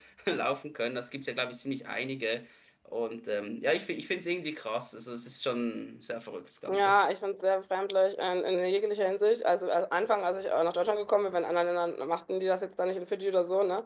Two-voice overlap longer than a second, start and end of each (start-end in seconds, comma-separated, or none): none